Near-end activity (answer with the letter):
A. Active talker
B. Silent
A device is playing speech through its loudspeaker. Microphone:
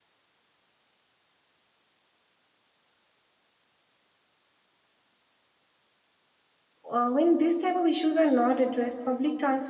A